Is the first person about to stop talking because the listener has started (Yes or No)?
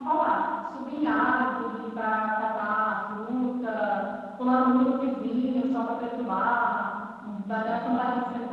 No